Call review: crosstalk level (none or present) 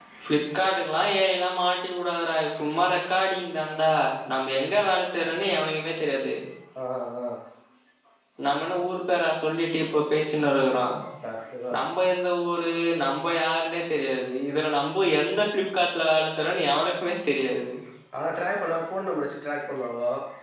none